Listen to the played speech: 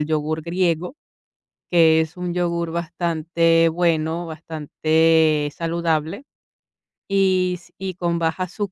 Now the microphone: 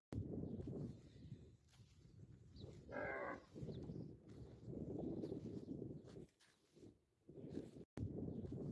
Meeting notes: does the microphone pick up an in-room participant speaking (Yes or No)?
No